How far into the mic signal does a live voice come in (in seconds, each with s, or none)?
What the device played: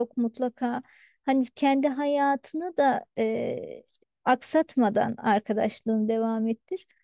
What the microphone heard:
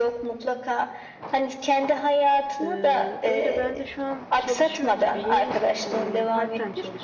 2.6 s